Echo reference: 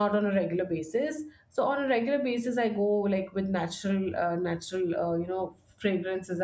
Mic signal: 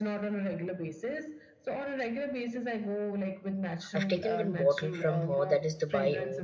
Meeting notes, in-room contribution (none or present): present